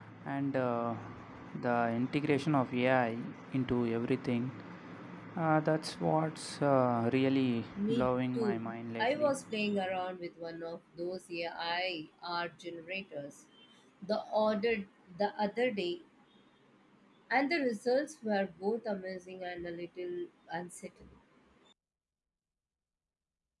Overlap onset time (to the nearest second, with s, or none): 8 s